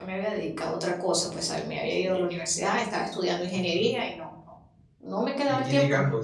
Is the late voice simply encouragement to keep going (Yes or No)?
No